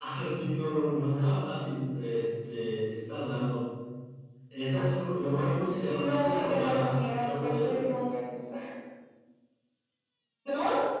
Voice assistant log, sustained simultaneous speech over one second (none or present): present